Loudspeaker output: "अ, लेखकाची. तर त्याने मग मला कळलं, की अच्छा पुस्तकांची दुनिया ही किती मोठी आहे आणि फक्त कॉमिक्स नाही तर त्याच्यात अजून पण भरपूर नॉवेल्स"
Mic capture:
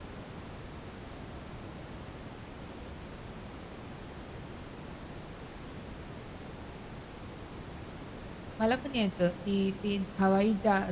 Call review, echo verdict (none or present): none